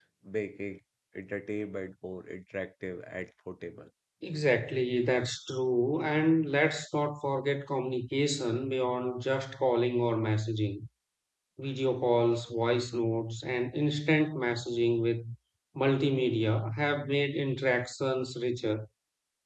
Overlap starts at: none

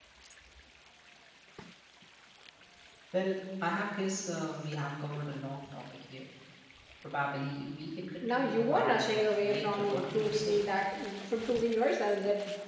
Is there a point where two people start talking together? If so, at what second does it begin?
8.2 s

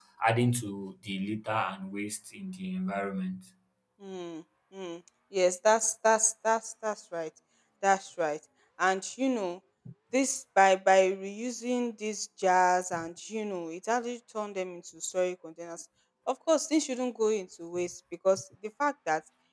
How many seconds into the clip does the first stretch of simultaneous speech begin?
none

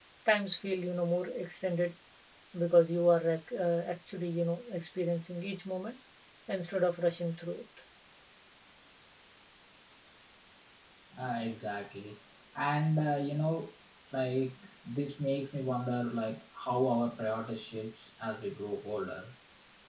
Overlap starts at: none

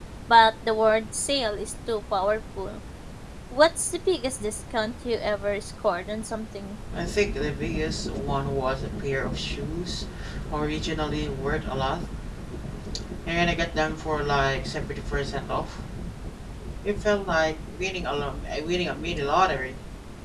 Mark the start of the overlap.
none

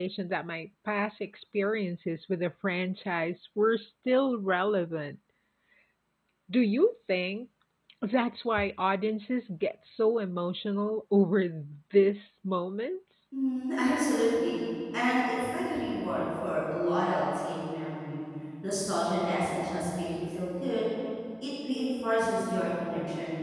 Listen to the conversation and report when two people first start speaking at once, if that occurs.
none

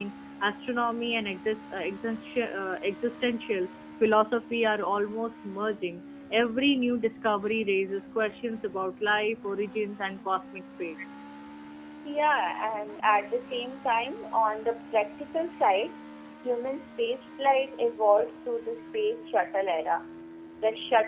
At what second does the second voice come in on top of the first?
none

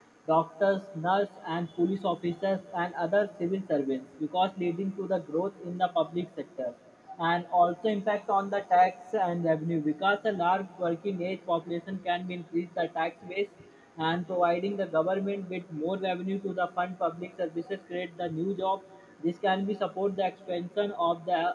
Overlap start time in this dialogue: none

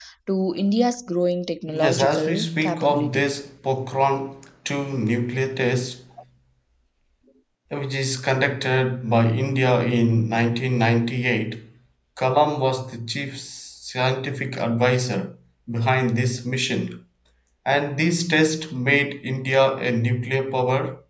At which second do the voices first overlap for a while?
1.7 s

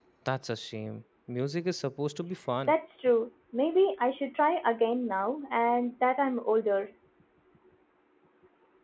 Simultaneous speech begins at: none

